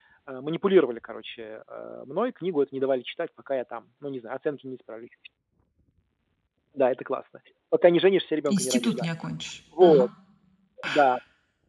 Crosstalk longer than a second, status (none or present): none